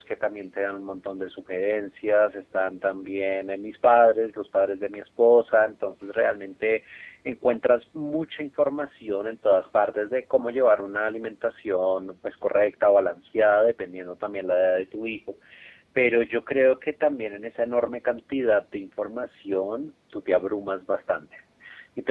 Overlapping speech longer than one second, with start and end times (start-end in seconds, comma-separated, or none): none